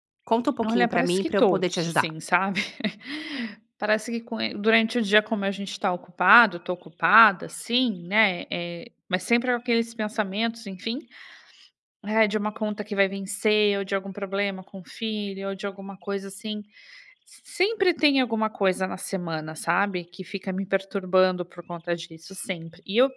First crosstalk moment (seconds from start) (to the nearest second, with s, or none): 1 s